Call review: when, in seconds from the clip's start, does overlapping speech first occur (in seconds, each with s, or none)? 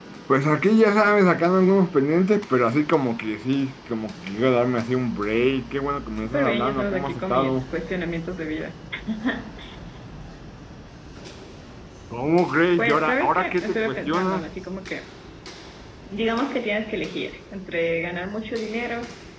6.2 s